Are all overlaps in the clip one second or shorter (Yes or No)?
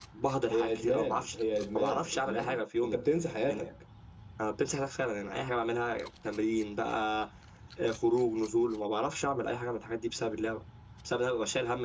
No